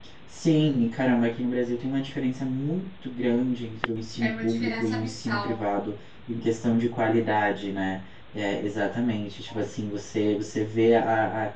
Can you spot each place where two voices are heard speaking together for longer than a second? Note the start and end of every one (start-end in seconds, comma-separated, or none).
4.2-5.6